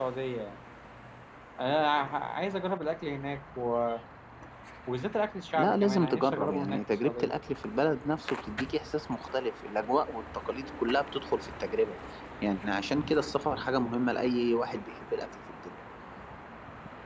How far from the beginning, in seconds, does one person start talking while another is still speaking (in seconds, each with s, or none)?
5.5 s